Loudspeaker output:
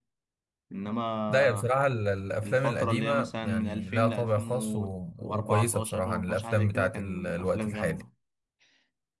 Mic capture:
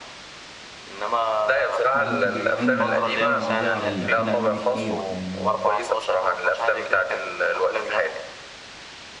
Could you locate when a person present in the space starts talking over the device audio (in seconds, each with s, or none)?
2.0 s